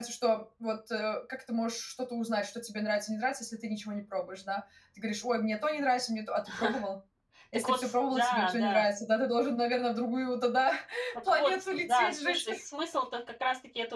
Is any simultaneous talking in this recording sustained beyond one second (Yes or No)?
Yes